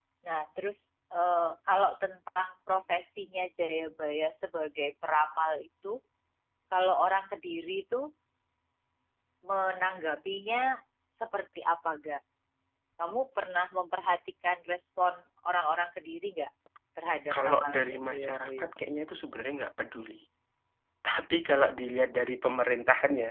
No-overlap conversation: No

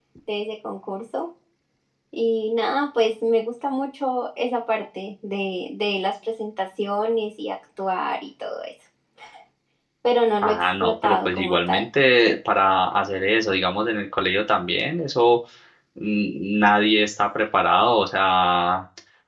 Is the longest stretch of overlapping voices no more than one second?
No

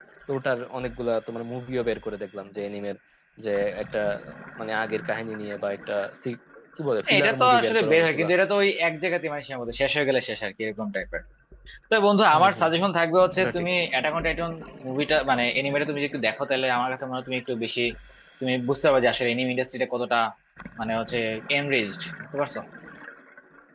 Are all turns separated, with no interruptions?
No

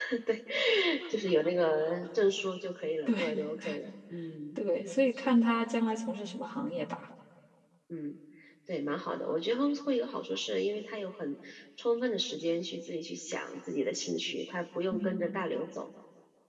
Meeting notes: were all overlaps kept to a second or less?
Yes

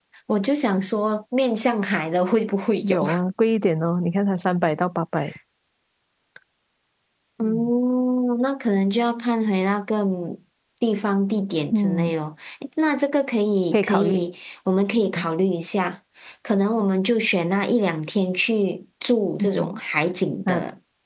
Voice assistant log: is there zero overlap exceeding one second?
Yes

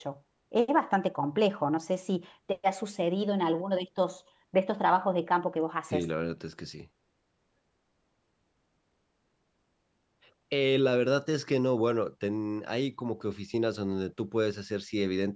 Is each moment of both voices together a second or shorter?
Yes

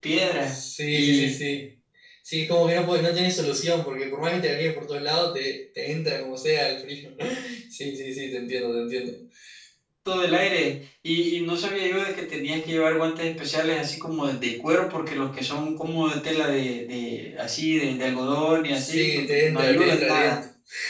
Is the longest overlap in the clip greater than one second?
Yes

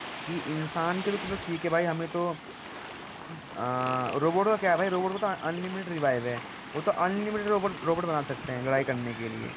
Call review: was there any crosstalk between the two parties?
No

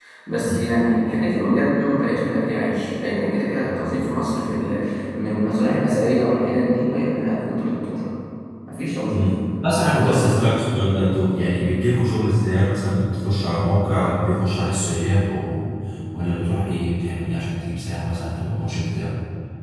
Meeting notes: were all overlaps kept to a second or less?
Yes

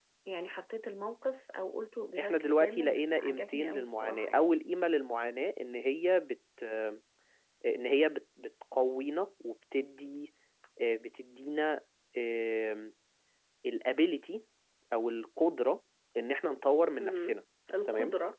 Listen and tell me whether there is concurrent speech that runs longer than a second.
Yes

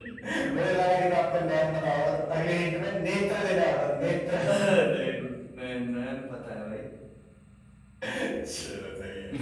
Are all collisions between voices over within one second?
Yes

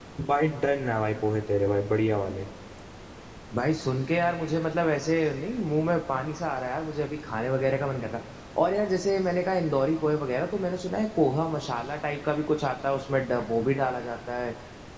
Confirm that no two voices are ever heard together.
Yes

